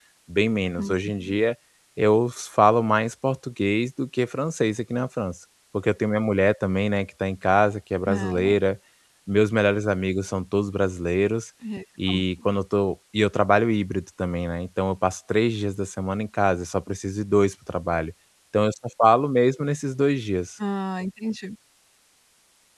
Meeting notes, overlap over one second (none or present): none